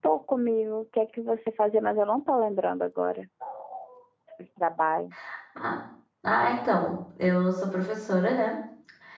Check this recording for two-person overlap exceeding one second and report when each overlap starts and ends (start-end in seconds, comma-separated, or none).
none